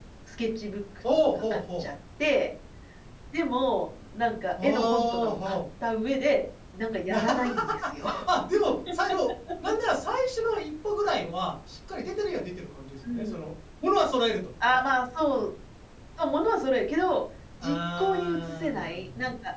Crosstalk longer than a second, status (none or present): present